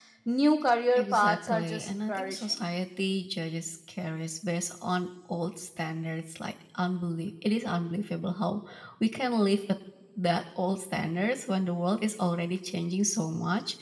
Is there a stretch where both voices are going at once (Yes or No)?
Yes